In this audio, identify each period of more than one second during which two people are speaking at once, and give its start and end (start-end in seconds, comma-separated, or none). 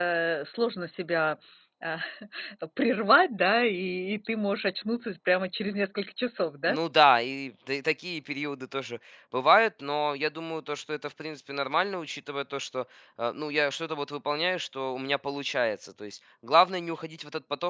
none